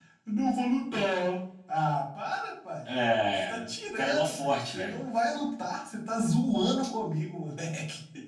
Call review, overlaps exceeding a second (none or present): present